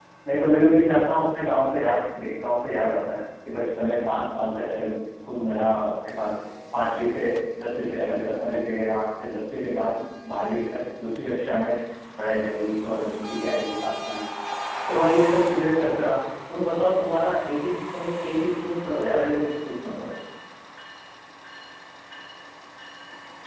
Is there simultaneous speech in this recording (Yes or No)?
No